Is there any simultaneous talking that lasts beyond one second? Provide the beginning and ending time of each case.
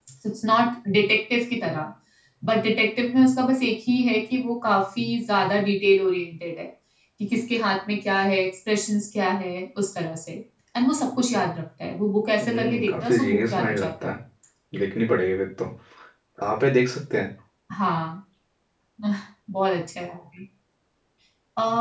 12.4-14.1

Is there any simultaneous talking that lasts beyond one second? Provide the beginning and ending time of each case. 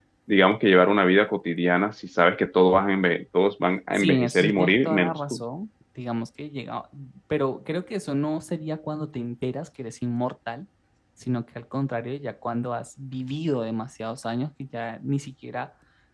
4.0-5.4

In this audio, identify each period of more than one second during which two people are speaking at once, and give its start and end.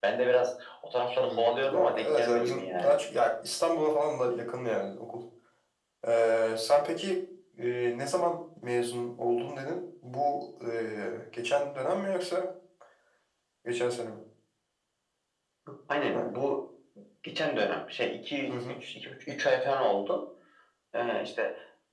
1.2-3.0

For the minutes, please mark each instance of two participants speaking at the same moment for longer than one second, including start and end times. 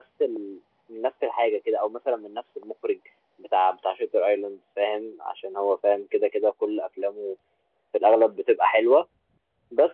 none

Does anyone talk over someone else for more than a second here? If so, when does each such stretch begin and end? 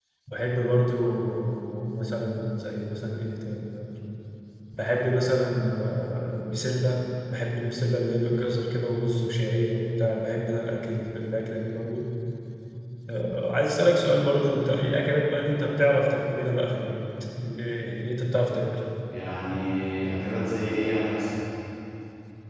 none

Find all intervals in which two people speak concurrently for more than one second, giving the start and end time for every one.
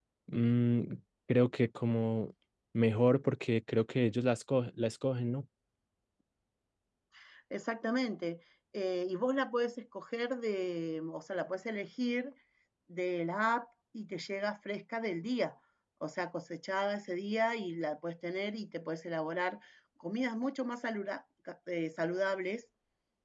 none

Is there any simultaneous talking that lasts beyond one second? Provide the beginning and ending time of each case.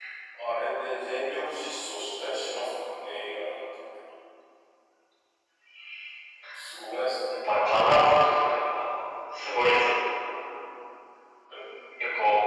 none

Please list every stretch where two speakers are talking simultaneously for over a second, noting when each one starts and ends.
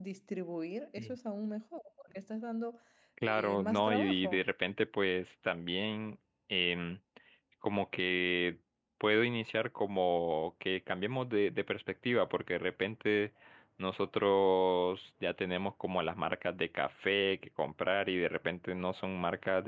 3.2-4.4

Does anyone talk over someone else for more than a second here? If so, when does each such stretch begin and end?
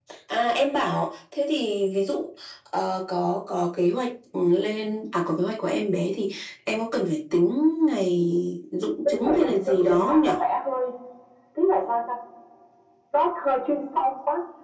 9.1-10.3

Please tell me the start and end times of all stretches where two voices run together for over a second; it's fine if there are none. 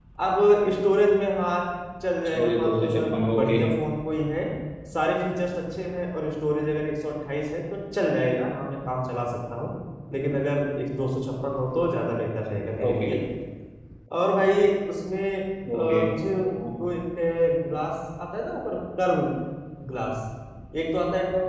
2.3-3.6

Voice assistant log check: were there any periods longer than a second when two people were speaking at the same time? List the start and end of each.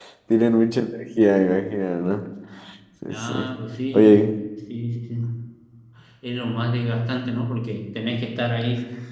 none

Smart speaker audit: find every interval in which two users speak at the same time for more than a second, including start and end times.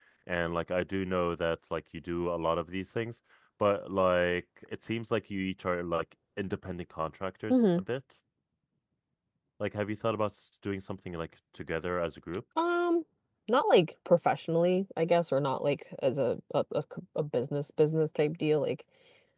none

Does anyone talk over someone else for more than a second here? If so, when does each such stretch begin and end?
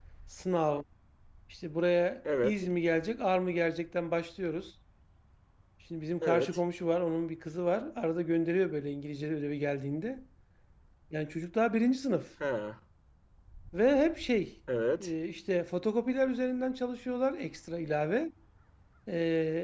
none

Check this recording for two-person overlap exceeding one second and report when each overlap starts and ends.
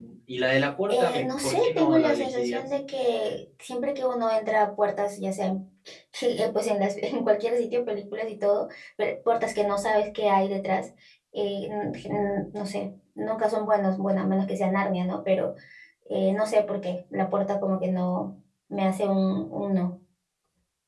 0.9-2.6

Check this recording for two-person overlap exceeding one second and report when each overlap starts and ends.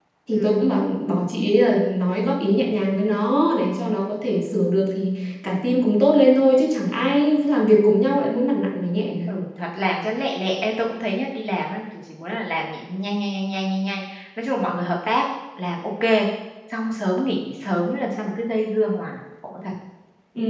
none

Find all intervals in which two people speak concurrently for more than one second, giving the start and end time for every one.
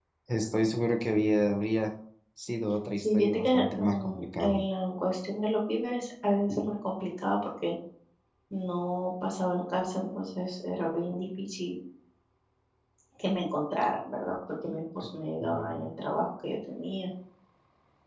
3.0-4.6

